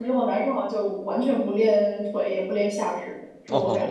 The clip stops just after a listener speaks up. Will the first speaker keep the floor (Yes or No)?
No